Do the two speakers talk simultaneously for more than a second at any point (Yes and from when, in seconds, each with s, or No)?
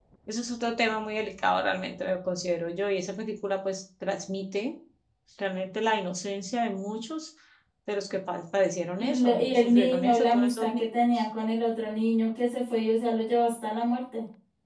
Yes, from 9.0 s